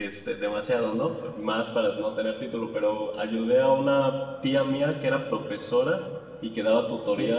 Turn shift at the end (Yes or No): No